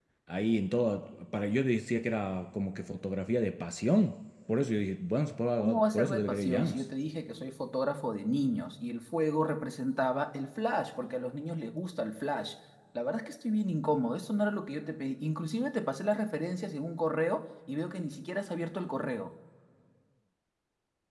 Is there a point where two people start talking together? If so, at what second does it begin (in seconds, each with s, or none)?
5.6 s